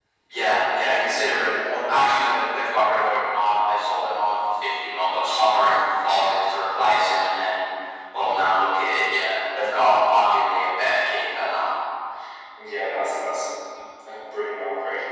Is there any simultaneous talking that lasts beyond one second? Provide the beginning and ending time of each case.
0.8-2.0

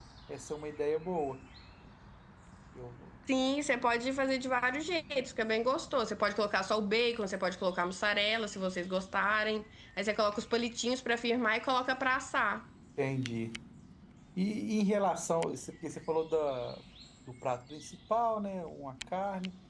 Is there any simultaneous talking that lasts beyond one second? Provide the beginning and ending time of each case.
none

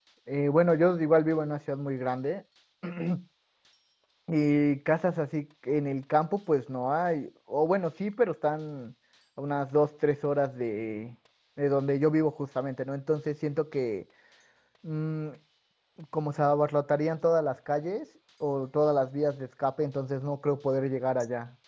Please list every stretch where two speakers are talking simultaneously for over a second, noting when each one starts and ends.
none

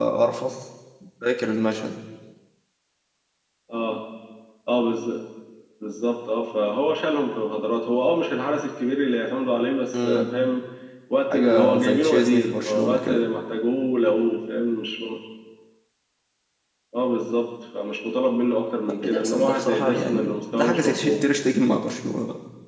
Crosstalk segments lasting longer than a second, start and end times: 11.3-13.2, 19.0-21.3

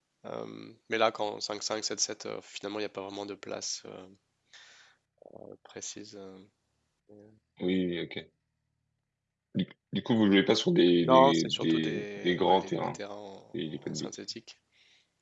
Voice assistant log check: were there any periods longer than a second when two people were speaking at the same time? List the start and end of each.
11.0-13.0

